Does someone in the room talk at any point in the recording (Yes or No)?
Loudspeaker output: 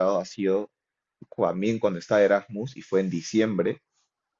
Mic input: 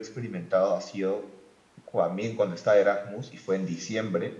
No